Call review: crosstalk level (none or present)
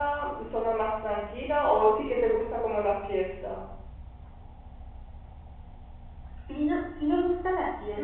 none